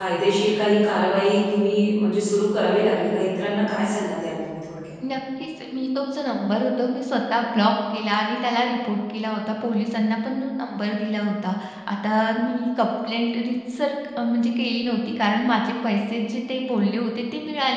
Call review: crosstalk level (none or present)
none